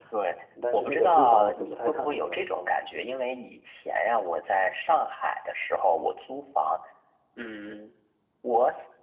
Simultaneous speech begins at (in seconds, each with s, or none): 0.7 s